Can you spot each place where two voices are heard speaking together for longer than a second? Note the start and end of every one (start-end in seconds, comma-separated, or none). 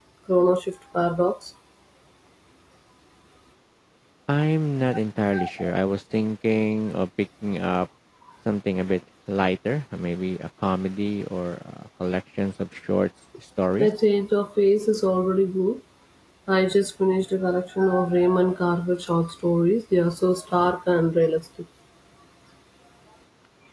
none